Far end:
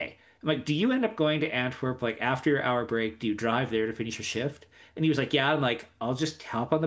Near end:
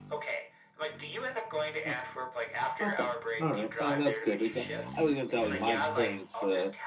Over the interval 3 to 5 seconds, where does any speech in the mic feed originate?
both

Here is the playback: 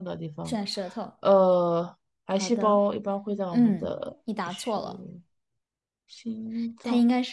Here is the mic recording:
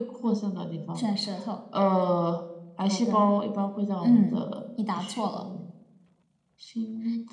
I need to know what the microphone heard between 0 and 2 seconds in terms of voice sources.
echo only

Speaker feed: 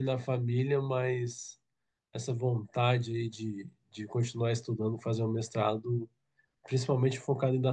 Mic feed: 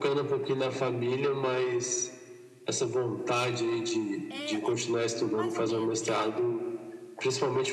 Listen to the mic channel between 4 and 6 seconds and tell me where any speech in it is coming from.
both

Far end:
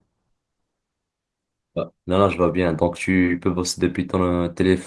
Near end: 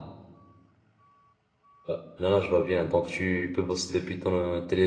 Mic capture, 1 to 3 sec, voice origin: echo only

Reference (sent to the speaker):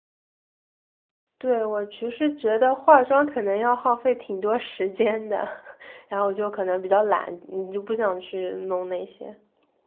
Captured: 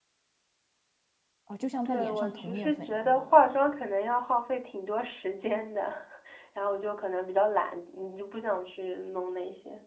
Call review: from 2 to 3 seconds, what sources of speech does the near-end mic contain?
both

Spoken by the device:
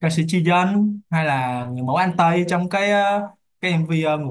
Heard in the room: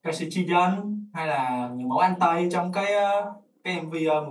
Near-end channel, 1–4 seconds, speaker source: echo only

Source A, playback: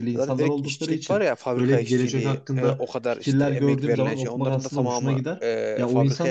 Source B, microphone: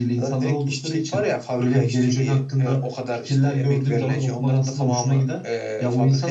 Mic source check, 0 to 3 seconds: echo only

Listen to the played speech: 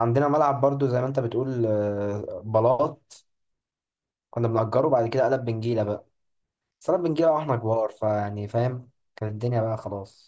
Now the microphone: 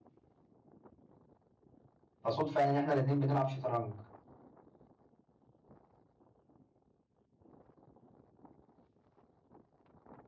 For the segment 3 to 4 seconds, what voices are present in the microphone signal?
user only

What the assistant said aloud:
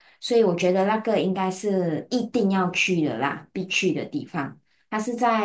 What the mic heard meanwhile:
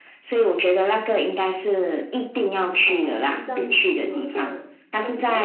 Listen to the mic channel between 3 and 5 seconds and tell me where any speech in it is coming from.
both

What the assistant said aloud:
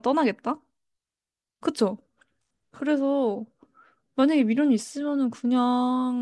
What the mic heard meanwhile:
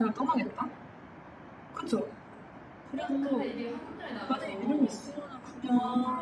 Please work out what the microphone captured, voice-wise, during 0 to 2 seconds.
echo only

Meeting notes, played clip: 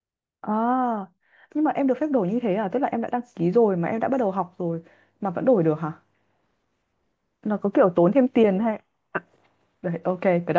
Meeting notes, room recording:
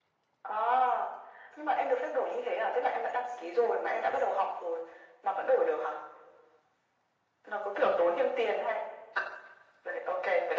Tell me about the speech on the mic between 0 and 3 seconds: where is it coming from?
echo only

